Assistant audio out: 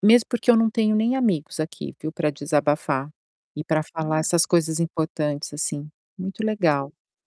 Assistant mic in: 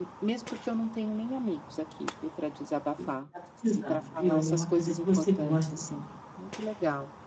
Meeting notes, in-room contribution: present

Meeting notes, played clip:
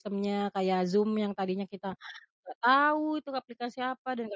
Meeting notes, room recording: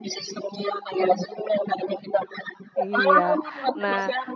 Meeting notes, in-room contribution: present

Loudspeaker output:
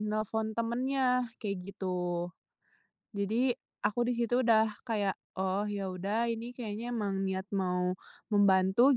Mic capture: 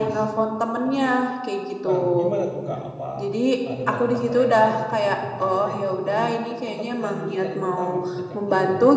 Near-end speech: present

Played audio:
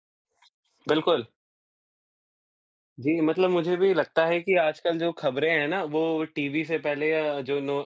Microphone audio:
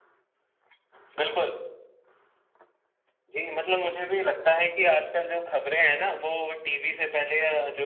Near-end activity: none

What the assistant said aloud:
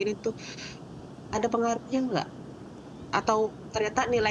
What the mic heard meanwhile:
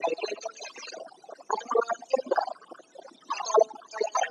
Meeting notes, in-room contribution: none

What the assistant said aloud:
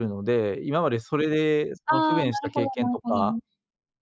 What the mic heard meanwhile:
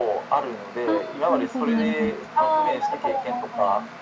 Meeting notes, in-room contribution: present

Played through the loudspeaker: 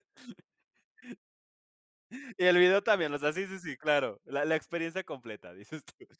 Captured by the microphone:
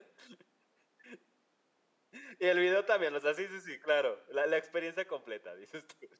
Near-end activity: none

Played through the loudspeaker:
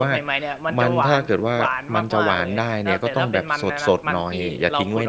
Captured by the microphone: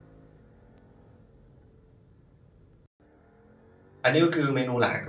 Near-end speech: present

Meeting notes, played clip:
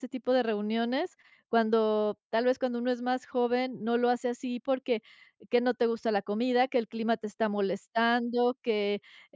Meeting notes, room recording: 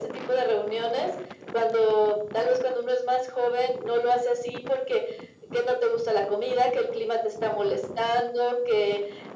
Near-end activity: none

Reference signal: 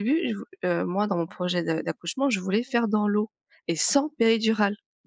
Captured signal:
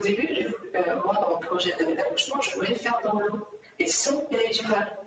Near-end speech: none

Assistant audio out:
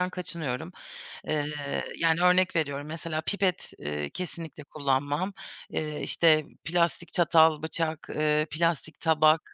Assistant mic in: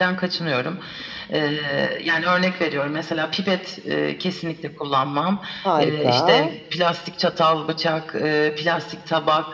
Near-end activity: present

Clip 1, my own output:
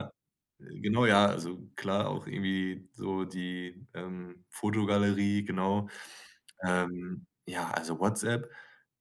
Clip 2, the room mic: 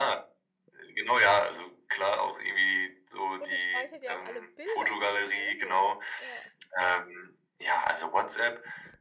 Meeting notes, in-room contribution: present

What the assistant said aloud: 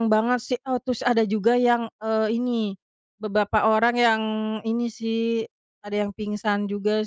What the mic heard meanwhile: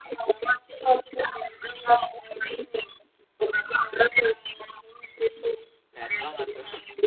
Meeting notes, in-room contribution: present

